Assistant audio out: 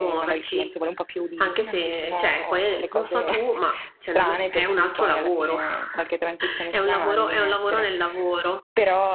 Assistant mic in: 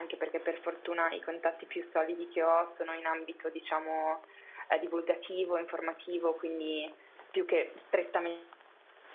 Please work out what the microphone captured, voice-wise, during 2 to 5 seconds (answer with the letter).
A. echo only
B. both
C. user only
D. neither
C